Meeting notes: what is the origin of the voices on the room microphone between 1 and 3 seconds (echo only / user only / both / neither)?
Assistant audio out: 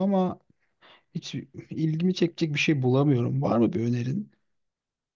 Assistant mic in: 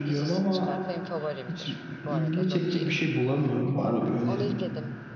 both